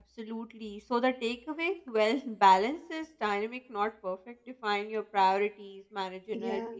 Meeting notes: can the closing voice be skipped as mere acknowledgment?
Yes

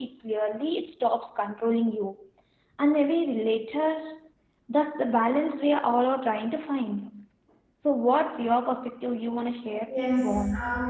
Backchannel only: No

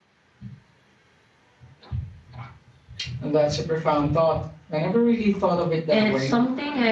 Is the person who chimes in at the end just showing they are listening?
No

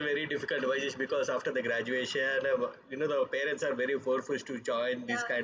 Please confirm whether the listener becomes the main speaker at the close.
No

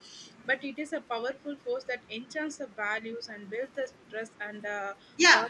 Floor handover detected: Yes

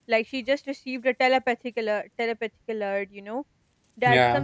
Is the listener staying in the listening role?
Yes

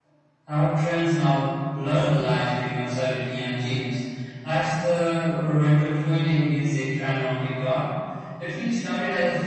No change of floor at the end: Yes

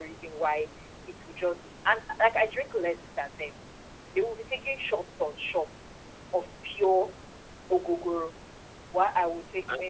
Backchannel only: Yes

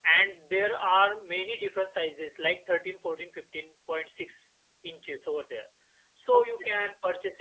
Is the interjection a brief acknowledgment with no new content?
Yes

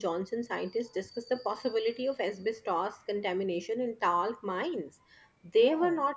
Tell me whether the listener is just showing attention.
Yes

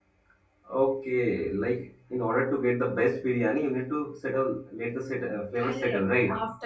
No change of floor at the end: No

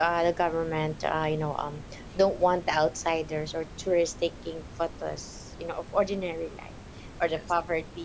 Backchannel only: Yes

